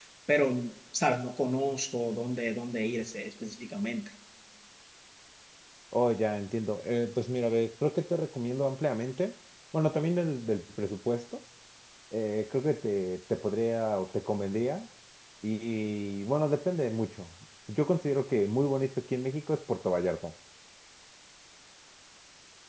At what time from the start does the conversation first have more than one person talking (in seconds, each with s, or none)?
none